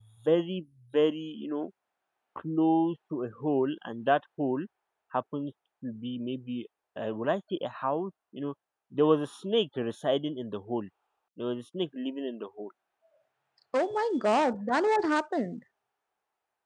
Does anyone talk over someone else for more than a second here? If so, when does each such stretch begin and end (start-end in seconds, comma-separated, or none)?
none